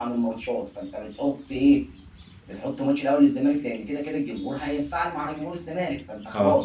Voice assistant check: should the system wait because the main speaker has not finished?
Yes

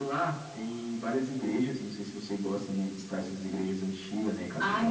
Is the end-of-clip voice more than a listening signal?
Yes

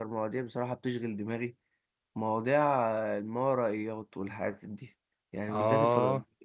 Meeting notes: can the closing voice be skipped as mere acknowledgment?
Yes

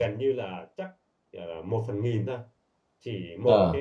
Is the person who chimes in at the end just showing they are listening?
Yes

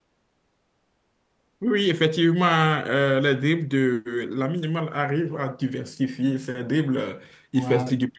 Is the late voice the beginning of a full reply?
No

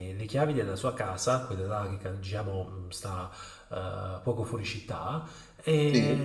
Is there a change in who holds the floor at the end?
No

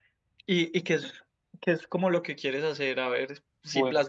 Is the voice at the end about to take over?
No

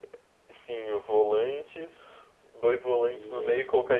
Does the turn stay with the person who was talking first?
Yes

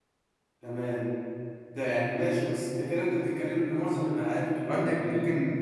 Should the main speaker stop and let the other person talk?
Yes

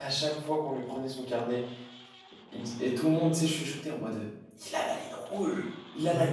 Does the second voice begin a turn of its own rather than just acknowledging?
No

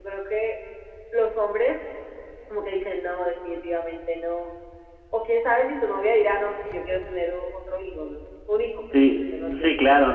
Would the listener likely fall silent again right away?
No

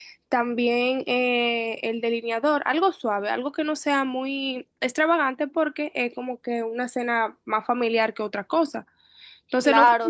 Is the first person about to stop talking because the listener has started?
No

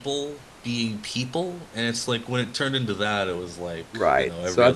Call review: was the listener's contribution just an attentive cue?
No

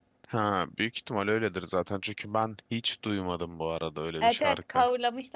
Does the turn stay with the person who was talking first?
No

